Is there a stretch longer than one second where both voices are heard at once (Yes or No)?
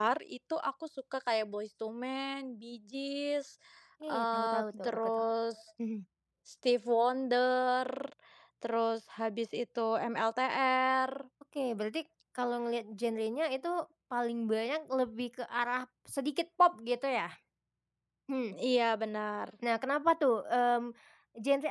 Yes